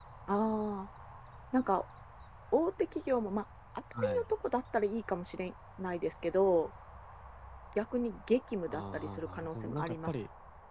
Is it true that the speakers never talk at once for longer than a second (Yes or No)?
No